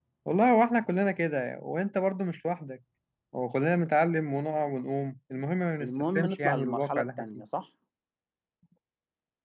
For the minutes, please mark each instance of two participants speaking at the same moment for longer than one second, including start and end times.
5.8-7.2

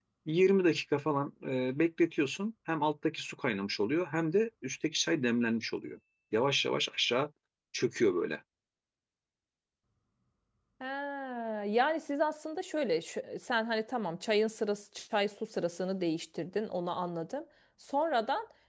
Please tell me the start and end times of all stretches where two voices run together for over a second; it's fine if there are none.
none

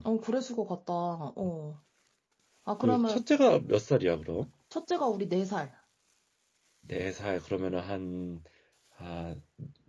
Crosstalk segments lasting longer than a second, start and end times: none

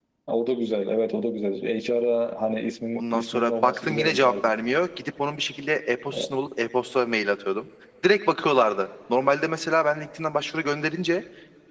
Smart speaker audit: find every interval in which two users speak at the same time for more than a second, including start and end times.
3.0-4.5

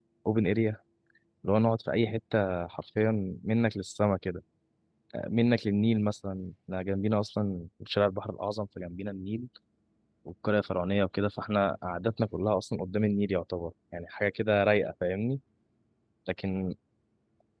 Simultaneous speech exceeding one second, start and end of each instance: none

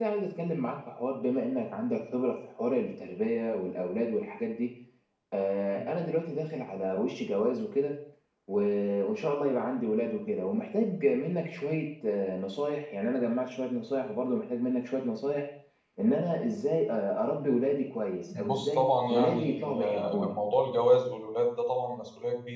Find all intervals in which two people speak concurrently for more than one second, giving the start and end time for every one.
18.4-20.3

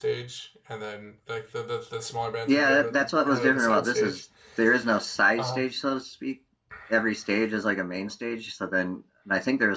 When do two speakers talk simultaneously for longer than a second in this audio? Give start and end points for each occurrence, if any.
2.5-4.2

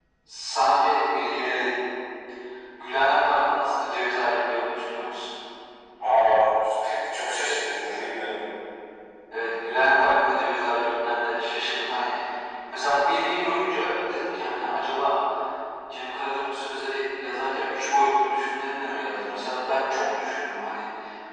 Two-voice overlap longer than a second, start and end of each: none

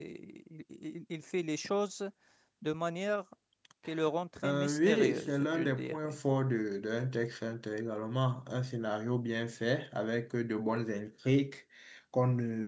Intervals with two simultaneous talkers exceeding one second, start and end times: 4.4-6.2

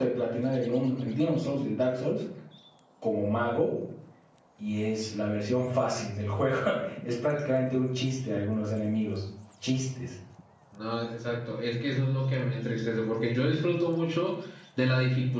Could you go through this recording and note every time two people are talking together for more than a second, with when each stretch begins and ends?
none

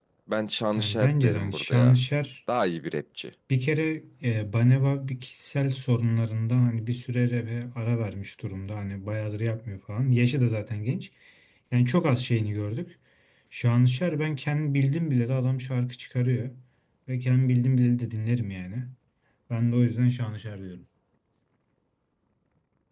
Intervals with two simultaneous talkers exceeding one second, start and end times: 0.8-2.0

